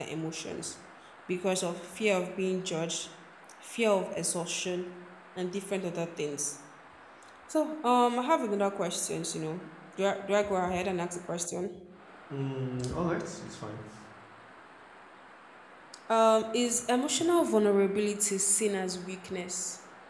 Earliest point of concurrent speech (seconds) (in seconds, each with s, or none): none